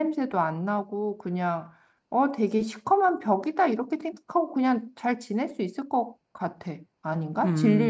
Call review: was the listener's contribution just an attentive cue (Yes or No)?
No